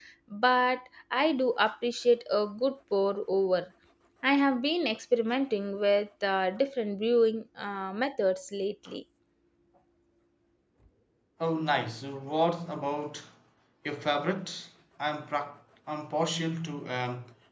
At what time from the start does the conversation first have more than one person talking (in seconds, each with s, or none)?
none